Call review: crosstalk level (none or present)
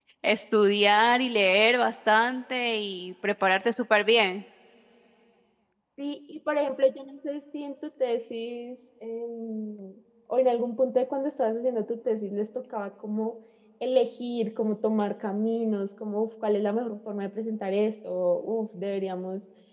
none